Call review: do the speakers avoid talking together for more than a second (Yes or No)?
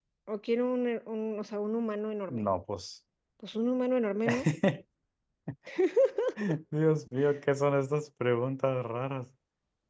Yes